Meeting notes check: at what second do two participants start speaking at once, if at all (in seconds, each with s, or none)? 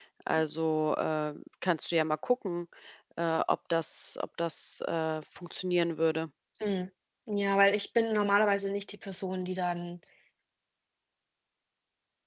none